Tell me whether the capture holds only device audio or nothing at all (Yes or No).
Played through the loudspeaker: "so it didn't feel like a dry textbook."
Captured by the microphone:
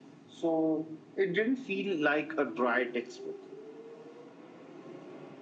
Yes